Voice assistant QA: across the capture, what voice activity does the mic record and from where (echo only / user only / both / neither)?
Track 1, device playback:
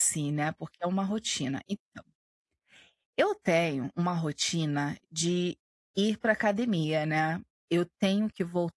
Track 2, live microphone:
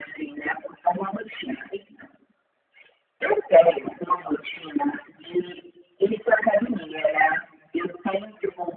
echo only